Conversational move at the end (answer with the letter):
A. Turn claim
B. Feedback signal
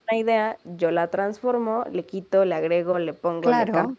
A